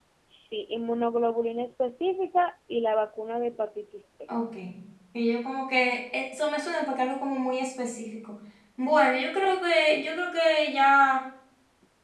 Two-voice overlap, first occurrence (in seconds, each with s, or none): none